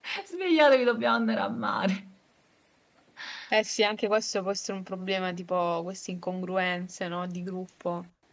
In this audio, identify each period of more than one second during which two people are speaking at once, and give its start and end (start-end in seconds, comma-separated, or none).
none